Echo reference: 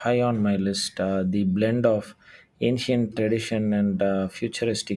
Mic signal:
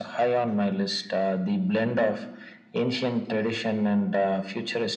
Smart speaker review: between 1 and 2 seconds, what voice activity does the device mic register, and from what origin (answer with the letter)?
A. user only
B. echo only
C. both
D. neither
B